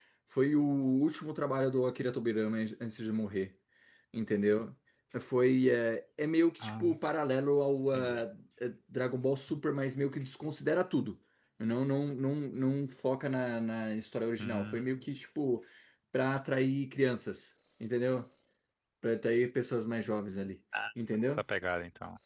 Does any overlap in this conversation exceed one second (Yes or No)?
No